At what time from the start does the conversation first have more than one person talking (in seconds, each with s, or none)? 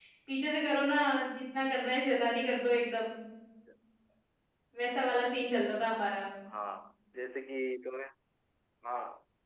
none